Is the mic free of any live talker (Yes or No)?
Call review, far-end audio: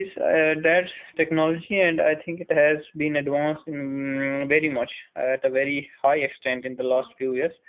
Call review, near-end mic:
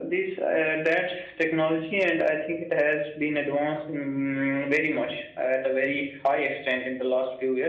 Yes